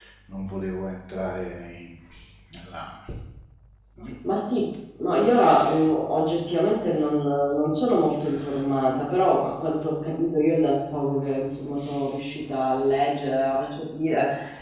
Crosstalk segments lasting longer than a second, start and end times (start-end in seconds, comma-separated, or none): none